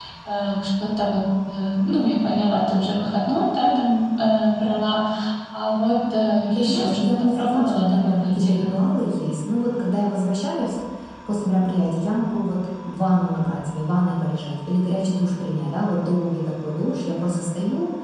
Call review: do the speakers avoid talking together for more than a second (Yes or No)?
No